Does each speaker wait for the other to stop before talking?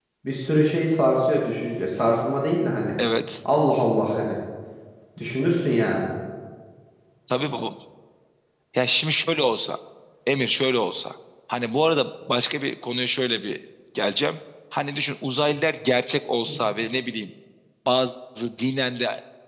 Yes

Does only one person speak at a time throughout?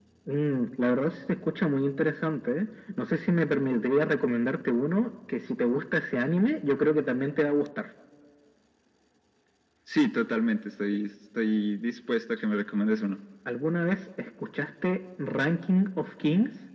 Yes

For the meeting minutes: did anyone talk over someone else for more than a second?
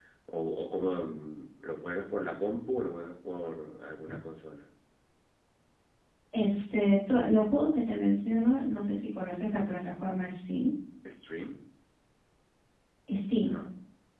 No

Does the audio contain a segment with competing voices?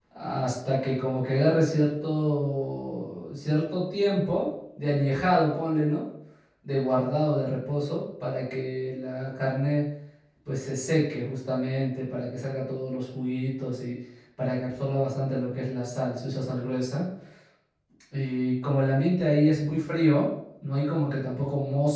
No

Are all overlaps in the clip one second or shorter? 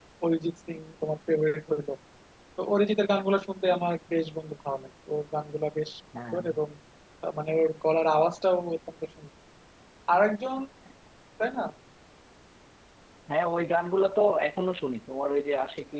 Yes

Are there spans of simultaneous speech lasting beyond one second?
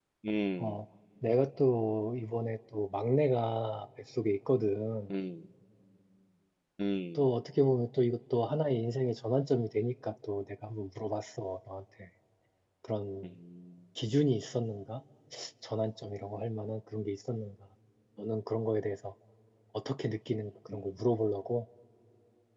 No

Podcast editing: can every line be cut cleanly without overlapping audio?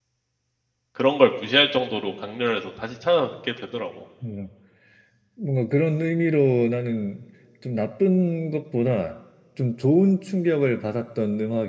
Yes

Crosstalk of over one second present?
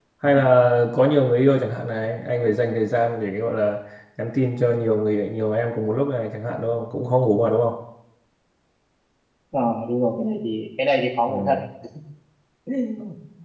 No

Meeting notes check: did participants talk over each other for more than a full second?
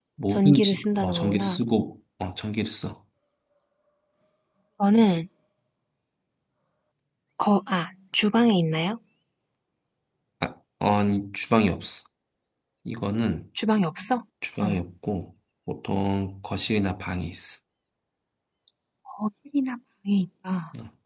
Yes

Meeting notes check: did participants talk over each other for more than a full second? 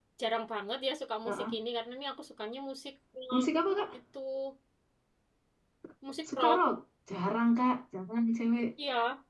No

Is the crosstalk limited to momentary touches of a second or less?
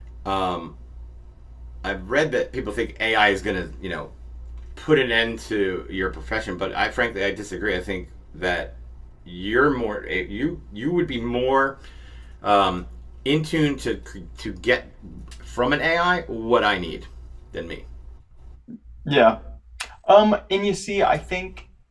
Yes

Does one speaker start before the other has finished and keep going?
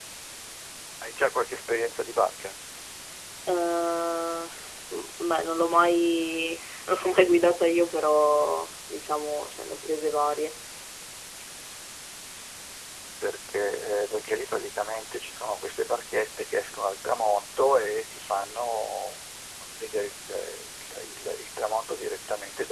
No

